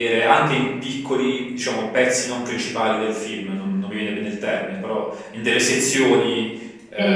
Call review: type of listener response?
listening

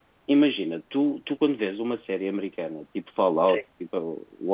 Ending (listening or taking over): listening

